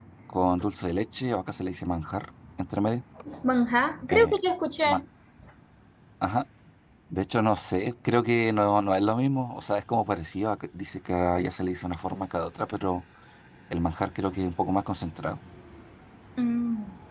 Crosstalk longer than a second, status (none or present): none